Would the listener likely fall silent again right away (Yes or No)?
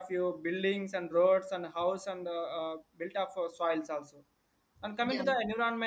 Yes